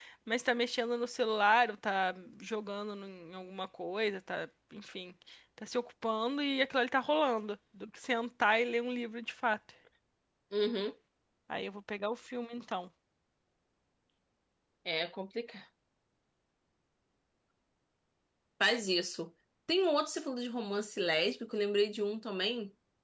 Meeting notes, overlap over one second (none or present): none